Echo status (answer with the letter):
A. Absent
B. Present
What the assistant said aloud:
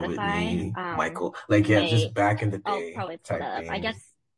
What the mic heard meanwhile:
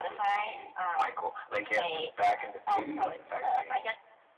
B